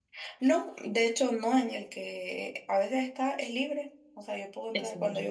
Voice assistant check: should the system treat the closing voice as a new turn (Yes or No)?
No